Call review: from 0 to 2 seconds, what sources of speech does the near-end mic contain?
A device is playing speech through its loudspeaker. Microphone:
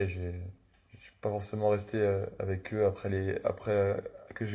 user only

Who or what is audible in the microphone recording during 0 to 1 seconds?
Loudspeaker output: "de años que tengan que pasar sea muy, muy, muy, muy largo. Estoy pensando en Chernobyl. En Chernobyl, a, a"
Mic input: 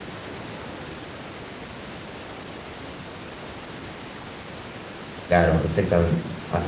neither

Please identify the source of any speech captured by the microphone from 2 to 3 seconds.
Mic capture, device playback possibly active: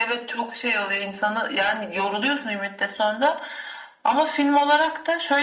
echo only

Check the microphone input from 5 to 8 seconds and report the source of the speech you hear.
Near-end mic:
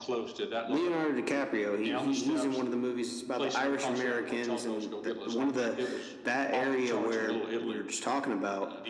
echo only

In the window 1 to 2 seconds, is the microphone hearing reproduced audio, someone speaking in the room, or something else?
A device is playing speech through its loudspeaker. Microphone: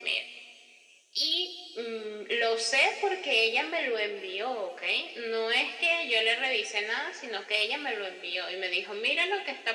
echo only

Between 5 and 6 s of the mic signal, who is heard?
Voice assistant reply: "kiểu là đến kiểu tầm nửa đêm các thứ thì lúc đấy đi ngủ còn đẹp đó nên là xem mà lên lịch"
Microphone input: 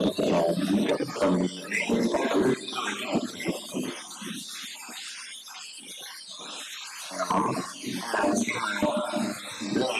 neither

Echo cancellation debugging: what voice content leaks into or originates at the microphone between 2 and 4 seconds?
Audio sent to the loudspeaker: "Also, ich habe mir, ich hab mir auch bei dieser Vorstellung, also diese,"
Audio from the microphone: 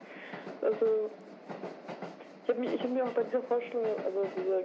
echo only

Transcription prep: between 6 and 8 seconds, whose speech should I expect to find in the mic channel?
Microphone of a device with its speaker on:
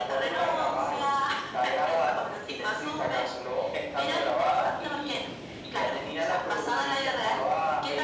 echo only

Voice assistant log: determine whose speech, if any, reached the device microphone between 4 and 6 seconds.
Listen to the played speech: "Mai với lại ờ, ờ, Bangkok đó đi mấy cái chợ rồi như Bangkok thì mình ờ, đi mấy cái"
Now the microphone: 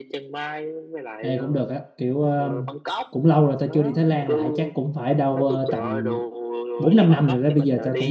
both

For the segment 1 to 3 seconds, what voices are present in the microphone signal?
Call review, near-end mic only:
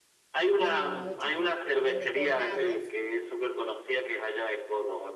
both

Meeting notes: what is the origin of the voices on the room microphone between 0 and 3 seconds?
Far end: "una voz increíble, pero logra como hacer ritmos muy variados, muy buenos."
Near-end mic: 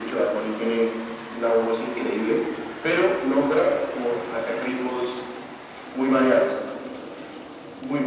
echo only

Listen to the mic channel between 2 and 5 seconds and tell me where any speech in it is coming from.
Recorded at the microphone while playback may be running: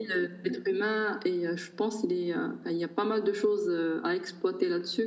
echo only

